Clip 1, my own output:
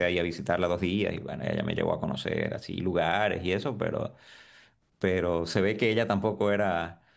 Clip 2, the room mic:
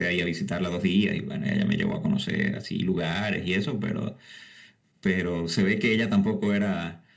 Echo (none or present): present